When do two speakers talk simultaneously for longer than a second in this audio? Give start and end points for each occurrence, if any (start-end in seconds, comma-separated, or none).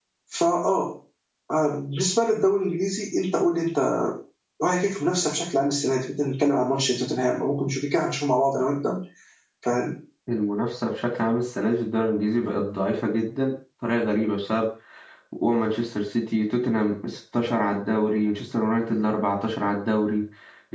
none